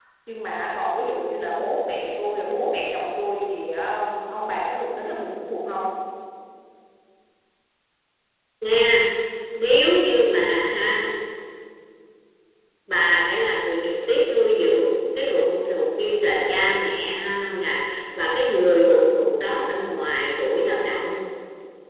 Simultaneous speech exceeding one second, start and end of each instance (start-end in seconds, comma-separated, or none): none